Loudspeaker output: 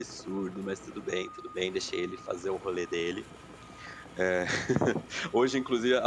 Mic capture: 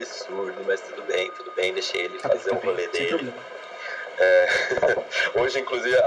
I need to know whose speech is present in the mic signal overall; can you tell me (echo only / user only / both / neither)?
both